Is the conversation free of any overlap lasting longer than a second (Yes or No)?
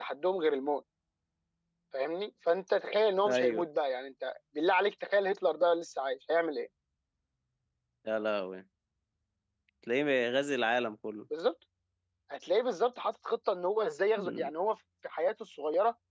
Yes